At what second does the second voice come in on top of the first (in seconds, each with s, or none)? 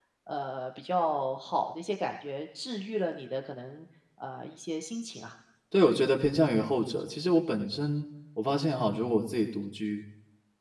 none